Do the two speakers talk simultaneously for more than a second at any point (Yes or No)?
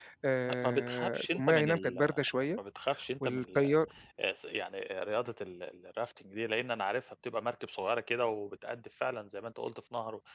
Yes